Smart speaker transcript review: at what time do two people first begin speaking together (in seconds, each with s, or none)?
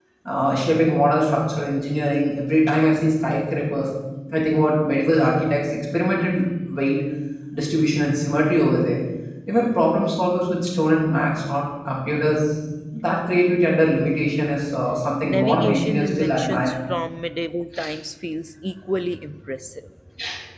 15.2 s